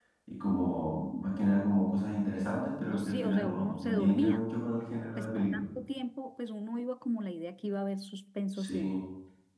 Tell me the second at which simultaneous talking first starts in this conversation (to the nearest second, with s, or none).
3 s